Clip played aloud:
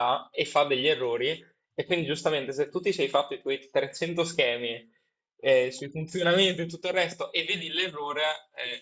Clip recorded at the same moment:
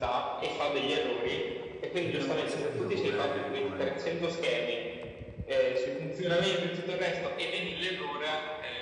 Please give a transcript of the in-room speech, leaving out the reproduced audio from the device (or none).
Perché non l'ho mai sentito come, come nome.